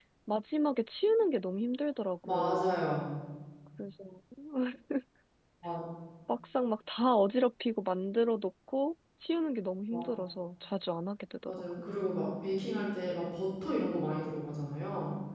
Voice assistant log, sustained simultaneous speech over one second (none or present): none